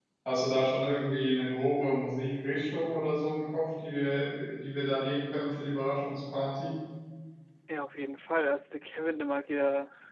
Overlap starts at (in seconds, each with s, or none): none